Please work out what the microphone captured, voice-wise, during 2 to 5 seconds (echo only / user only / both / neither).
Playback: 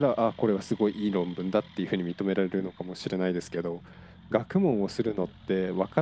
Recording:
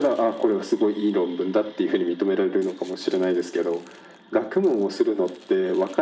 echo only